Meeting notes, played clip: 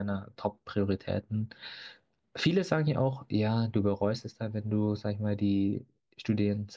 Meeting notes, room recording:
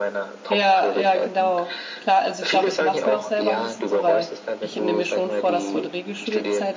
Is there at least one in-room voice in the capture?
Yes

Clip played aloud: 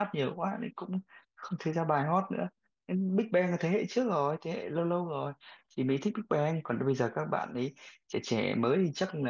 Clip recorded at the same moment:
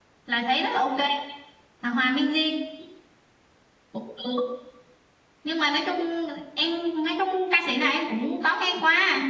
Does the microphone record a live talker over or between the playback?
Yes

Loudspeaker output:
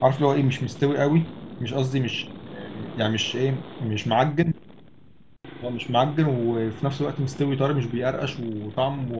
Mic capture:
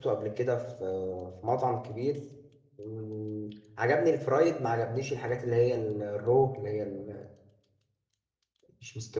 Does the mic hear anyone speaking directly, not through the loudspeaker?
Yes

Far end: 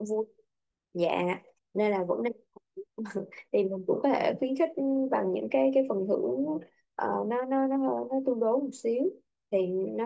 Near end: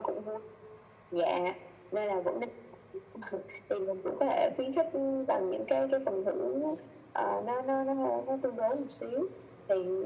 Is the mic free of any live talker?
Yes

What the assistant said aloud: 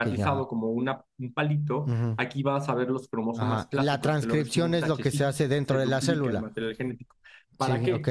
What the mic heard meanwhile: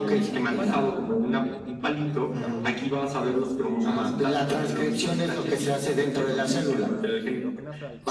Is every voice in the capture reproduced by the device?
No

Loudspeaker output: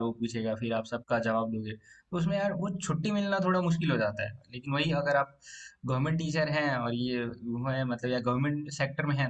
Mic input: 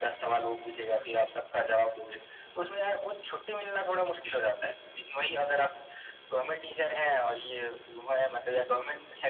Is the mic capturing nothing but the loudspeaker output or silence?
Yes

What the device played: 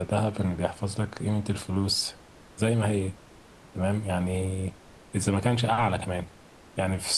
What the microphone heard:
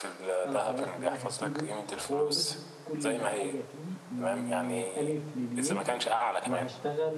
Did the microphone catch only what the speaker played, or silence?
No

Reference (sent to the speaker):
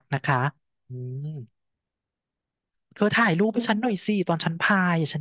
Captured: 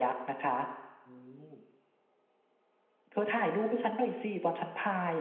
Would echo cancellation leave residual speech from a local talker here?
No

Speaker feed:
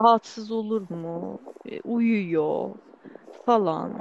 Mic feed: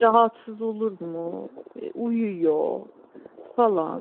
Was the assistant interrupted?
No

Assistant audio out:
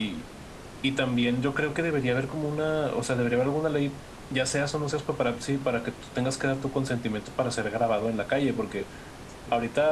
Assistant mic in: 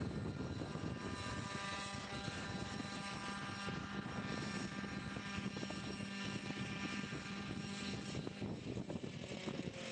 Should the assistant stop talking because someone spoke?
No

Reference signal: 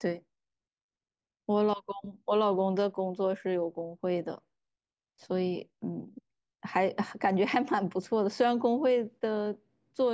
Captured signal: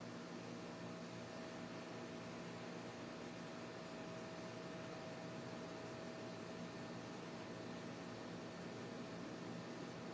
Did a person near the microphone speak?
No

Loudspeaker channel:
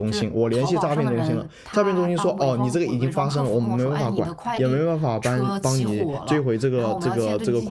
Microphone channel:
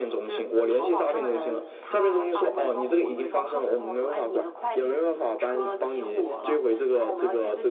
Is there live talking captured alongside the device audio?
No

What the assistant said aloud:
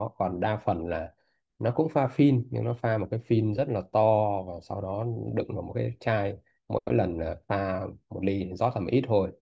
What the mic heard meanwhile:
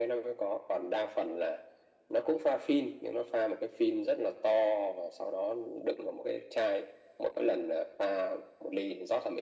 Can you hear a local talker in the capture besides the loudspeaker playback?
No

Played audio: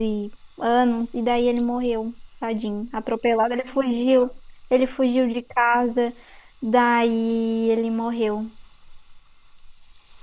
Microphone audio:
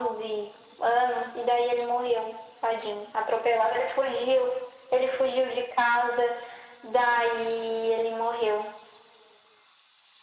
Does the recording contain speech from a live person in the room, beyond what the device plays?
No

